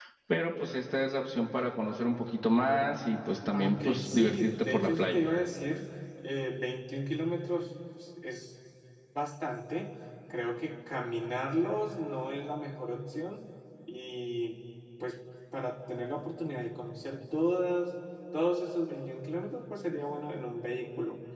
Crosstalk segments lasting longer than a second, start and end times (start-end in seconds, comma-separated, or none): 3.5-5.3